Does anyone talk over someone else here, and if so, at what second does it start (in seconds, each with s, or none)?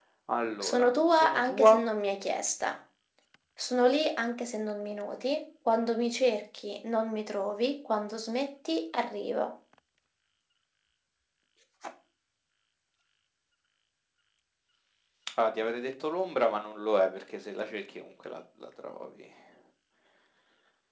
0.6 s